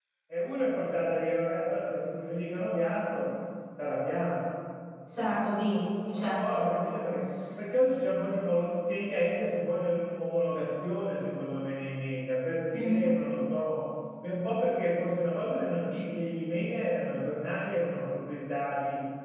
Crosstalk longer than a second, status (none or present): none